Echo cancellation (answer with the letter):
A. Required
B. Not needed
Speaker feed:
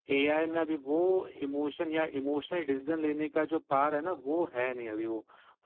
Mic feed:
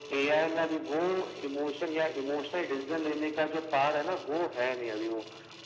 A